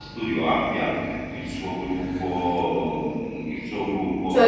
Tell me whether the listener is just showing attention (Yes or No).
No